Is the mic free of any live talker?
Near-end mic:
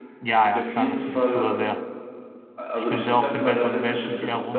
No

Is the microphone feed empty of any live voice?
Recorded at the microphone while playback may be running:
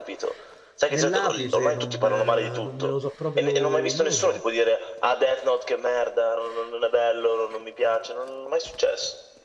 No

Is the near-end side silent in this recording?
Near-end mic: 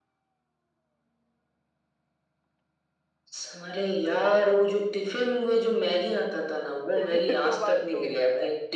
No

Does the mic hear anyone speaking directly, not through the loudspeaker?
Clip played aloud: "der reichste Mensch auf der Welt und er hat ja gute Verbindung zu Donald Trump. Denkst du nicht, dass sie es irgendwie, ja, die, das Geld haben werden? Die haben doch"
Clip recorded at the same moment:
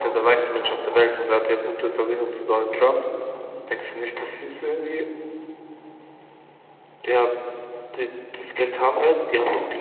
No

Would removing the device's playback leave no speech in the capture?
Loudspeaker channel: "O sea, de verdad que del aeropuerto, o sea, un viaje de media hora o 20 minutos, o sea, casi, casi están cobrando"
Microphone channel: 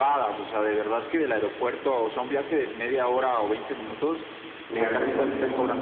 No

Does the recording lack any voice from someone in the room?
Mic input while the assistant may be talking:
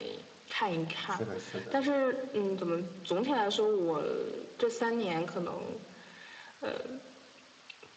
No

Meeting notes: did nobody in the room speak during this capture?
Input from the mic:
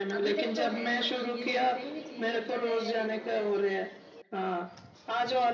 No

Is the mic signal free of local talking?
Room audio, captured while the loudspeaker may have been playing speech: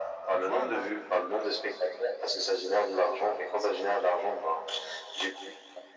No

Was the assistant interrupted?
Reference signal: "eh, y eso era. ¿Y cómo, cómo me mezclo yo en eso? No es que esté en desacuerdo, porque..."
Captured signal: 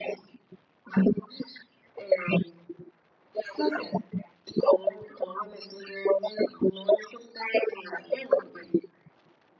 Yes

